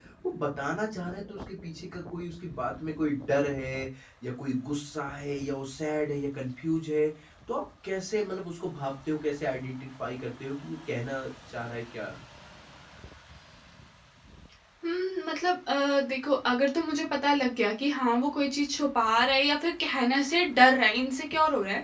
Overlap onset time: none

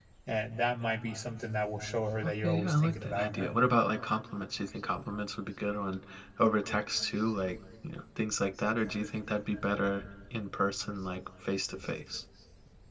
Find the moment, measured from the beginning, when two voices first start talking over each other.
2.2 s

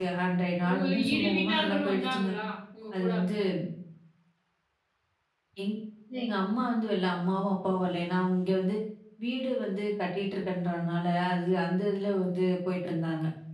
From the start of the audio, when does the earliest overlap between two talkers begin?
0.7 s

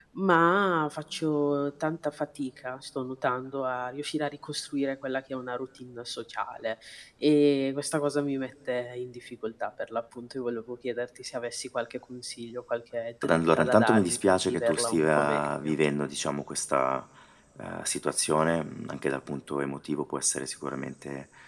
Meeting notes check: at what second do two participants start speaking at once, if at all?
13.2 s

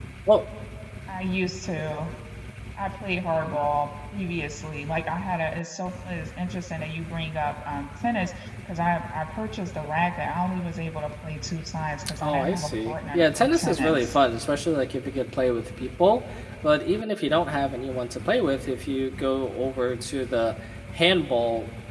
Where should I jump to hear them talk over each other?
12.2 s

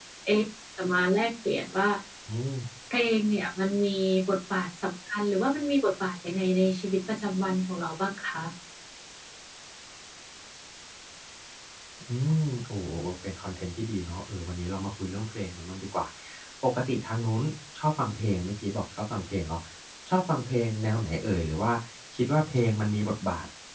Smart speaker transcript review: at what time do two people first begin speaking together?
none

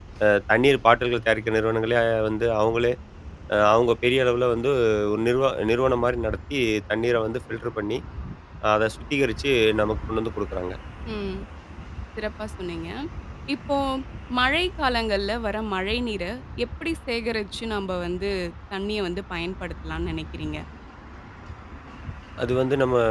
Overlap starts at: none

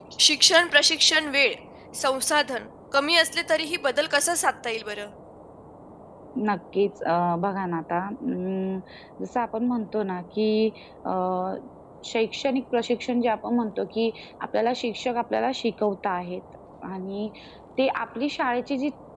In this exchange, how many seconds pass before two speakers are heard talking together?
none

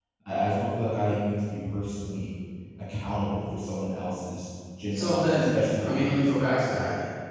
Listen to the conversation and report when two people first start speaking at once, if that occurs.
4.9 s

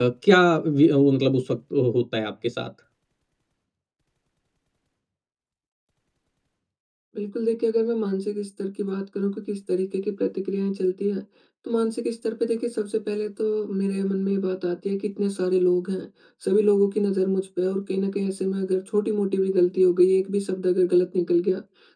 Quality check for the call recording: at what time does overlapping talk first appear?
none

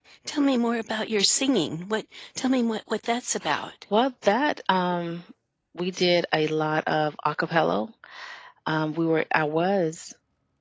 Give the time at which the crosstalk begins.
none

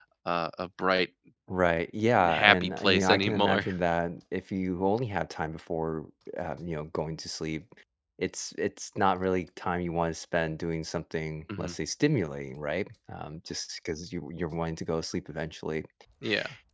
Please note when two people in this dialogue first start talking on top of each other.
2.3 s

